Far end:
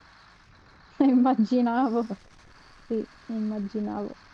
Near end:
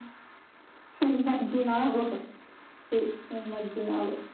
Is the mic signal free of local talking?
Yes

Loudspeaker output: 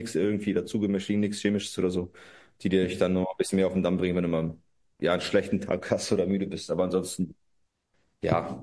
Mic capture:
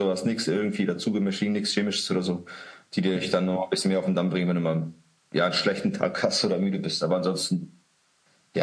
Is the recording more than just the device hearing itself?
No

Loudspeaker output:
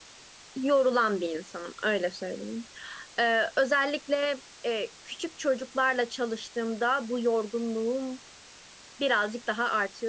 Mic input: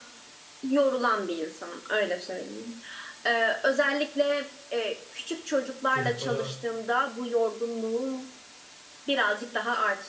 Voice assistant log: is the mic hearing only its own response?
No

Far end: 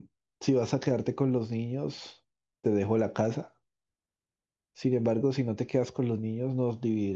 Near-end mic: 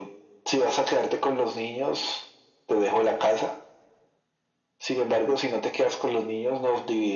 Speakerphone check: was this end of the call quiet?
Yes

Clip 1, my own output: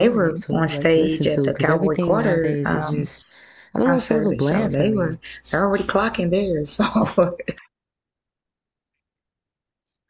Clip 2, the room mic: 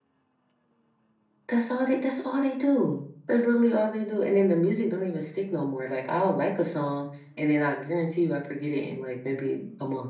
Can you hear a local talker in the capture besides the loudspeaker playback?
Yes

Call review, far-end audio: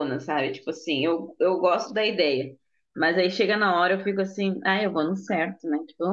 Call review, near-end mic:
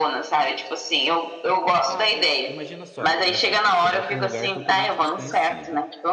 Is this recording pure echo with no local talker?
No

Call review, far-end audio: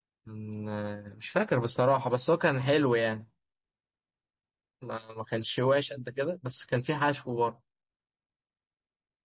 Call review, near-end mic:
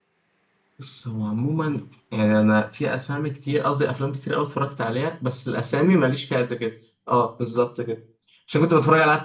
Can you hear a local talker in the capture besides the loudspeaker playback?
Yes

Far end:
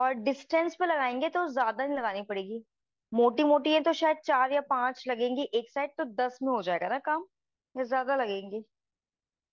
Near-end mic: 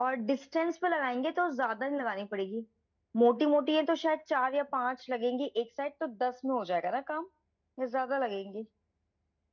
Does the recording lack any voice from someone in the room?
Yes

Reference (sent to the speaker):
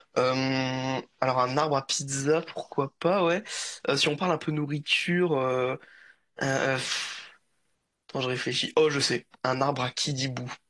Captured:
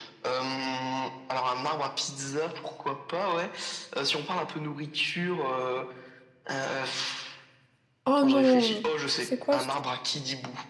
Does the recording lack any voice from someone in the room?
No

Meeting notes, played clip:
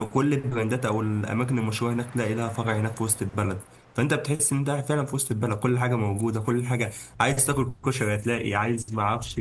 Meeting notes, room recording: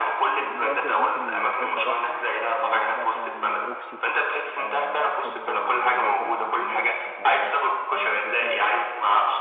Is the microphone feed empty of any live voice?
No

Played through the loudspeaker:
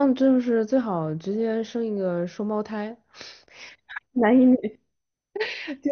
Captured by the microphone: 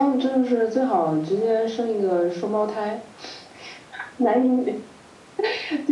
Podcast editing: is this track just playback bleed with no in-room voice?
Yes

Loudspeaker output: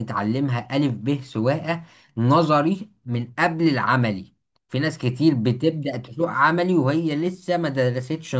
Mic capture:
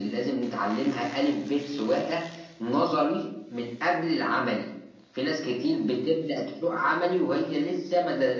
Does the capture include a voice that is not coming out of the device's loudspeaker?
No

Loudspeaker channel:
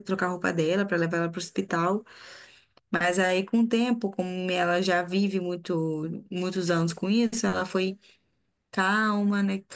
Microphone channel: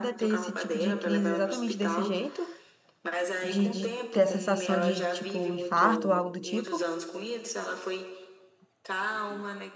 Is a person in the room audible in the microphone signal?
Yes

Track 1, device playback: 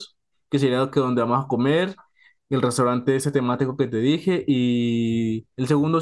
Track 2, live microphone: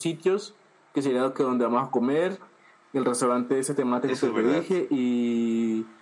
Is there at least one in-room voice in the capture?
Yes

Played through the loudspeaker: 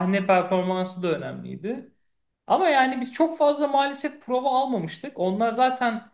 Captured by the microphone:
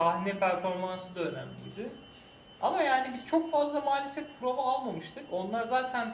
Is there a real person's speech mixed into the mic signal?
No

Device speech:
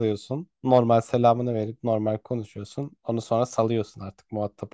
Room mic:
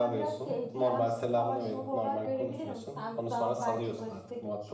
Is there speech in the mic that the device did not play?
Yes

